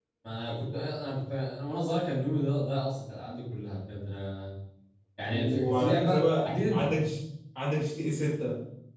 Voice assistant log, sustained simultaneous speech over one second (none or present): present